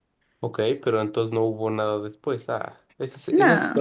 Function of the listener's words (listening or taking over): listening